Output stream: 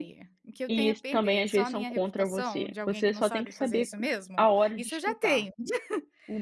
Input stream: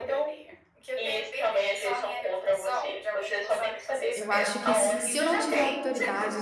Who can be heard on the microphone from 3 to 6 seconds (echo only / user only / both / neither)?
both